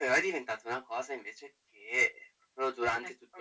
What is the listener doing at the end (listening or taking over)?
listening